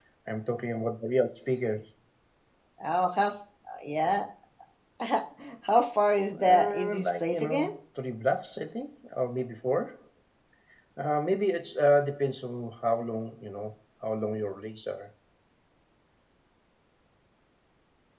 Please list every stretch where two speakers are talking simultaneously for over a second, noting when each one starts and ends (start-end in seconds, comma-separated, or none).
6.5-7.7